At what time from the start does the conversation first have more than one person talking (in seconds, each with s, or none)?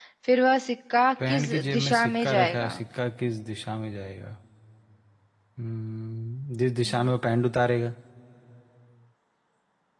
1.3 s